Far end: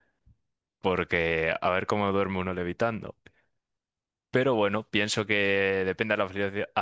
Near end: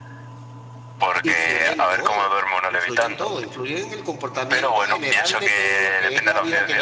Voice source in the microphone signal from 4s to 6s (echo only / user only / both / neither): both